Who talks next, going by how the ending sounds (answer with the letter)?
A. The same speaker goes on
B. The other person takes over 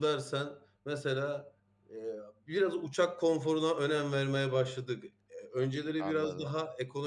A